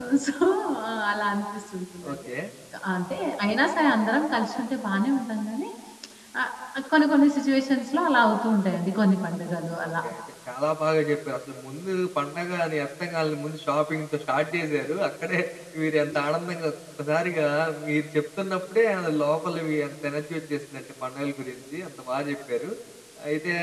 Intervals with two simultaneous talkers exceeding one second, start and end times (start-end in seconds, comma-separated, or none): none